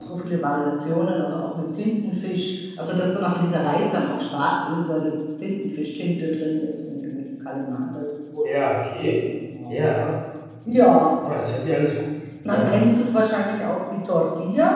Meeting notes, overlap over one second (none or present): none